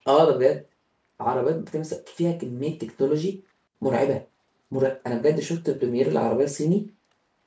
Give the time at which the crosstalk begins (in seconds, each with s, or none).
none